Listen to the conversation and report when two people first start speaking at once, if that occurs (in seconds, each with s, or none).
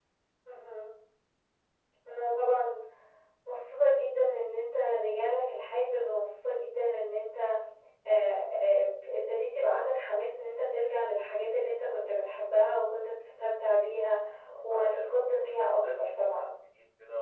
14.7 s